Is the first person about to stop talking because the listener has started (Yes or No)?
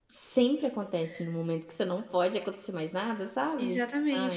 Yes